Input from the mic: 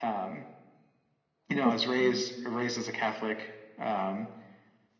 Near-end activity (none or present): present